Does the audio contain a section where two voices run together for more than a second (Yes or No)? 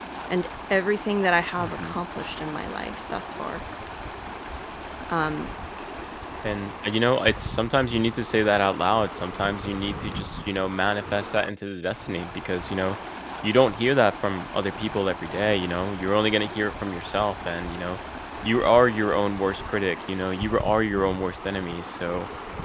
No